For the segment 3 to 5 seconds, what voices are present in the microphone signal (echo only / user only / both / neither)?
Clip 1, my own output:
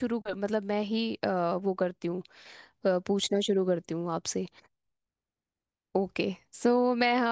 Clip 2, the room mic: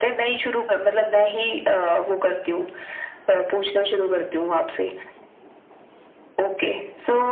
echo only